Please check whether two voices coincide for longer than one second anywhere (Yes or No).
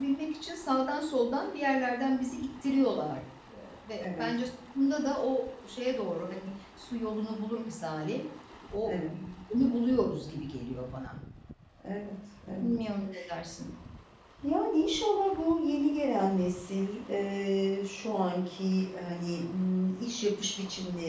No